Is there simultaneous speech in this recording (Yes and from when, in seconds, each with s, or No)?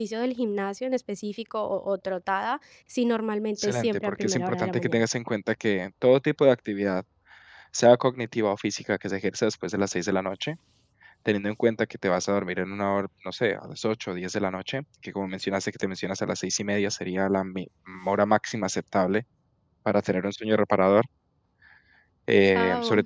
Yes, from 3.6 s